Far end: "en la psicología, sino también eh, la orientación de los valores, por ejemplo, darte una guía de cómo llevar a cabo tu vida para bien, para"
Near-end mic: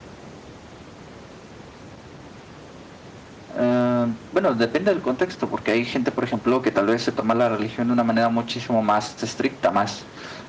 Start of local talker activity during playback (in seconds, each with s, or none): 3.6 s